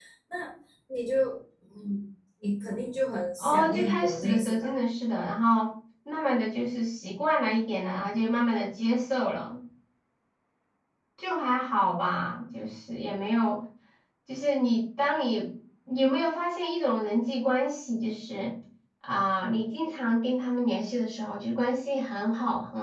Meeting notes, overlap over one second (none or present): present